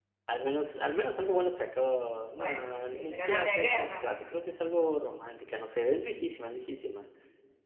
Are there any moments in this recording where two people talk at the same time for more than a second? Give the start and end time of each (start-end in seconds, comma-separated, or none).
2.3-4.2